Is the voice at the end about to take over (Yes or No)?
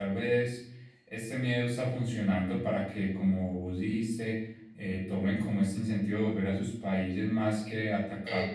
No